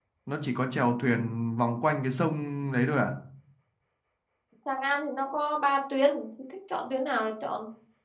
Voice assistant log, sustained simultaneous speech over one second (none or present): none